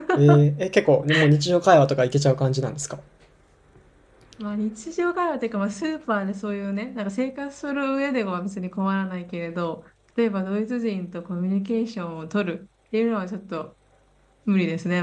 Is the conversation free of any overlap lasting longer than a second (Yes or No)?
Yes